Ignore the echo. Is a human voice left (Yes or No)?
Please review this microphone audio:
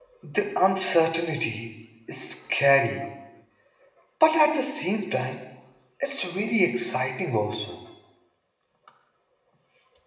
Yes